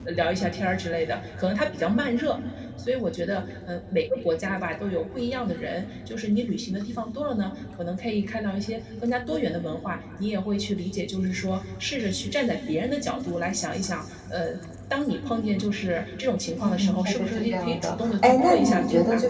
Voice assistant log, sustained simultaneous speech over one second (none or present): present